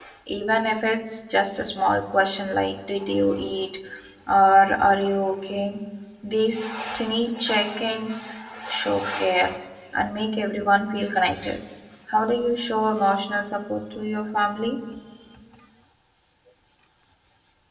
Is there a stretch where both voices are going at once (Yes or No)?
No